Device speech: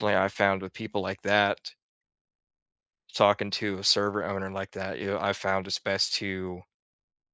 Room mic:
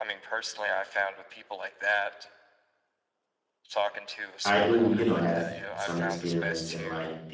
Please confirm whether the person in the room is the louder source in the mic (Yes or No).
Yes